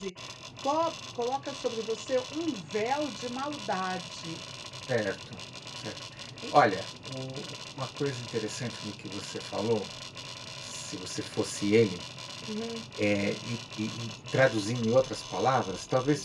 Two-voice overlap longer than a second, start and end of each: none

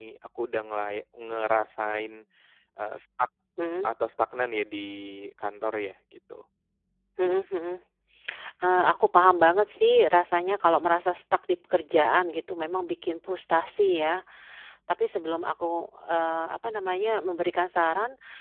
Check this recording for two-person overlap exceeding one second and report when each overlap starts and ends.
none

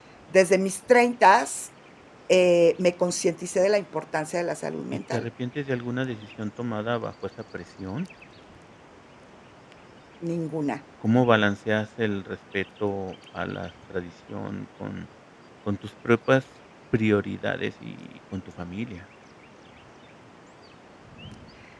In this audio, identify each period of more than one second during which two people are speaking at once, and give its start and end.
none

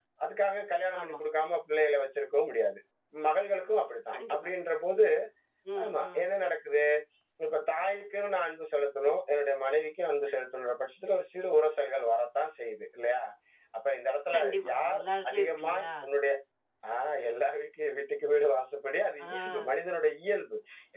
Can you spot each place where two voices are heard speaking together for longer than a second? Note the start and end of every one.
14.3-15.9

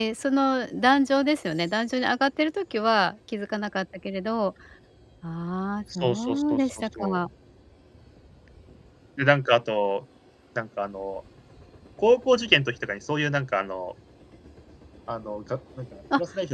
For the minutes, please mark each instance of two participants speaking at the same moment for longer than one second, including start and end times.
6.0-7.3

